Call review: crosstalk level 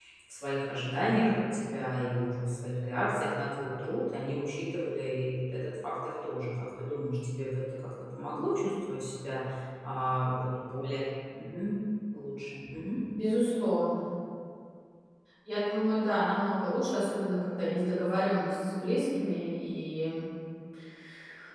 none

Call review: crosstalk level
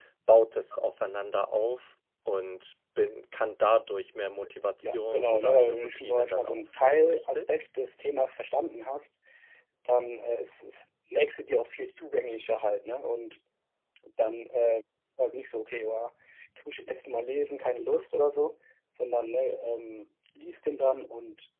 present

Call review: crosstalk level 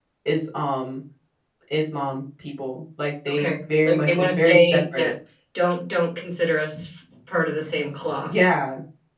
present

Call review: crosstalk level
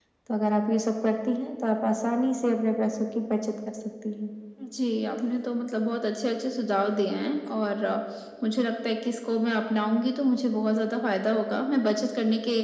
none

